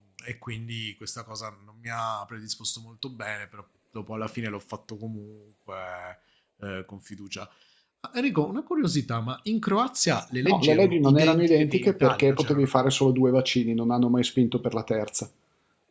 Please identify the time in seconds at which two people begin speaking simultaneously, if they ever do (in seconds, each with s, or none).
10.4 s